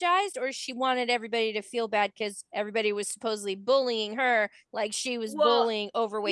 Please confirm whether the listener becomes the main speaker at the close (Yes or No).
Yes